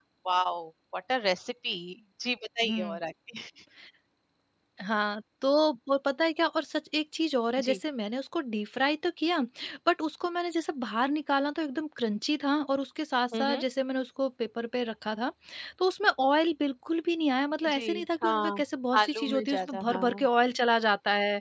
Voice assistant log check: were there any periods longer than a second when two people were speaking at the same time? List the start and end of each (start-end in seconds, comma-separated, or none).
19.0-20.3